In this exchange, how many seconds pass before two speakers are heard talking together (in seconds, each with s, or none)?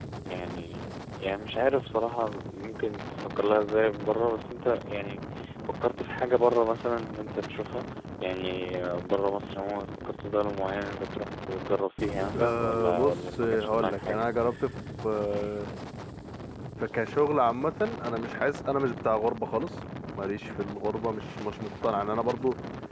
12.3 s